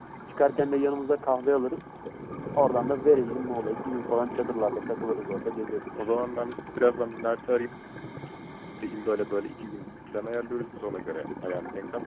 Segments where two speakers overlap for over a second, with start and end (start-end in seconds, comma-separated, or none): none